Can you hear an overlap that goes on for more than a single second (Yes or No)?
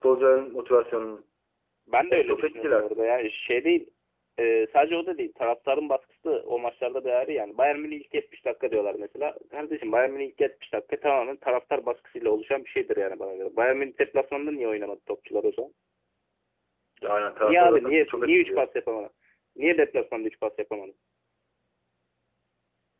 Yes